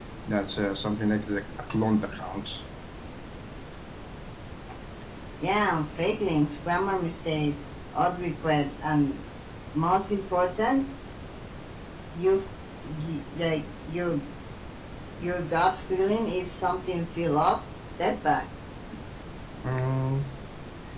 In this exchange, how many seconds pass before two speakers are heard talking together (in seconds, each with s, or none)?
none